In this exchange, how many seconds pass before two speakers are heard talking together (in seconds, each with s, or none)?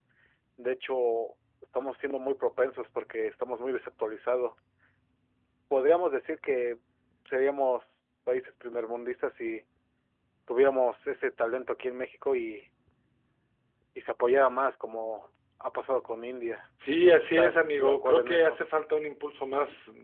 17.0 s